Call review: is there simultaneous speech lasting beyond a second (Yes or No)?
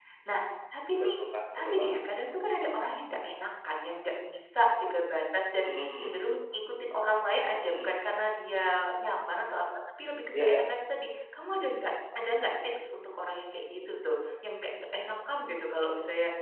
No